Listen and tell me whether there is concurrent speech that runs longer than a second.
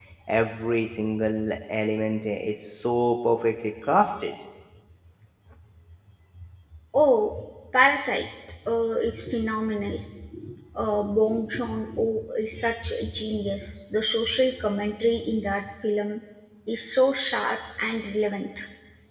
No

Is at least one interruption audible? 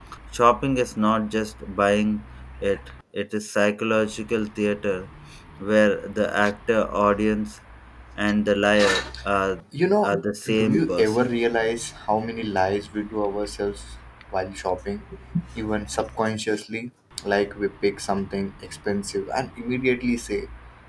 Yes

